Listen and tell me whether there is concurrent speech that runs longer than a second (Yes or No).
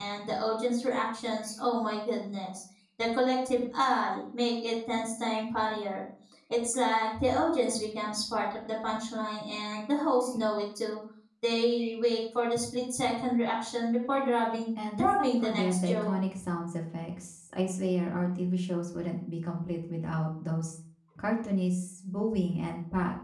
Yes